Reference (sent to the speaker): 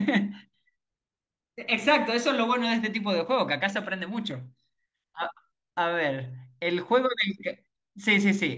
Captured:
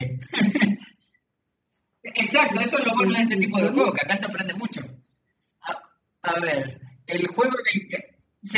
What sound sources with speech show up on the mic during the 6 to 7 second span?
echo only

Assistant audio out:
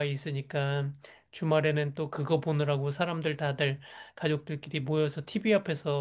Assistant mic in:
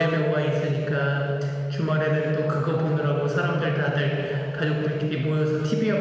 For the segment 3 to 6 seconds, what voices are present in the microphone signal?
echo only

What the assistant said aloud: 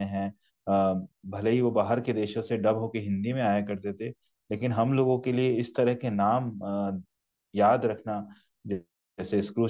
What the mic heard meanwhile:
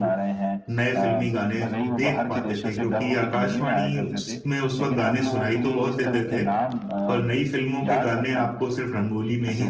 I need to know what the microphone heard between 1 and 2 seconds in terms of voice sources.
both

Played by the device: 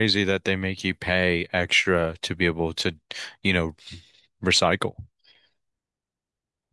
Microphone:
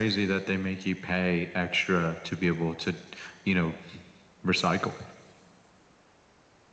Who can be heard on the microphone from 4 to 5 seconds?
echo only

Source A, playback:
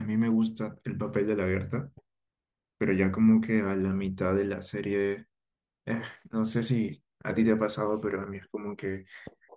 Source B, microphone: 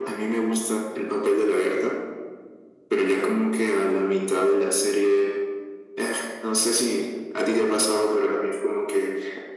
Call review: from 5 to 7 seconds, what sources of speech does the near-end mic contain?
echo only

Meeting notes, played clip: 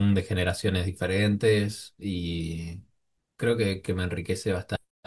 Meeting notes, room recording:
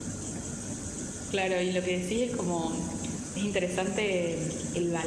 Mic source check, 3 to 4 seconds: user only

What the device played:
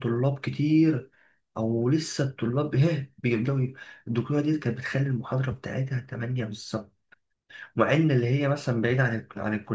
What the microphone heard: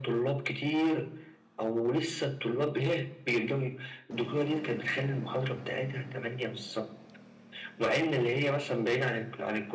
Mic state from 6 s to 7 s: echo only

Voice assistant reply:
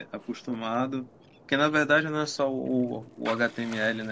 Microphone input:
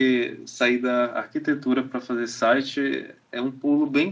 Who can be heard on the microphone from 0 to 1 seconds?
user only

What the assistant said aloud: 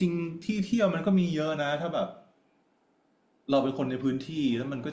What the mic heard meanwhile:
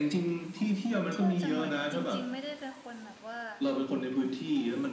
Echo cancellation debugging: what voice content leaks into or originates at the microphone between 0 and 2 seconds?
both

